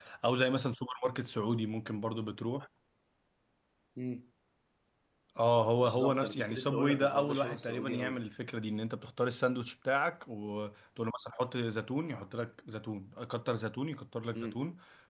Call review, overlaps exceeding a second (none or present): present